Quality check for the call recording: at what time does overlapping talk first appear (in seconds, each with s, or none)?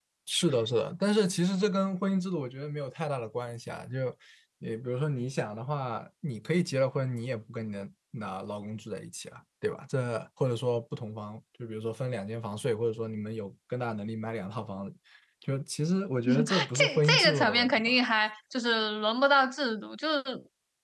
16.5 s